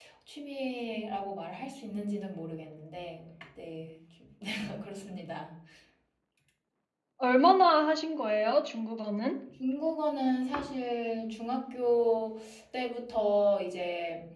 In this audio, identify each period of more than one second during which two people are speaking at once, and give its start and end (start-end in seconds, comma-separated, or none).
none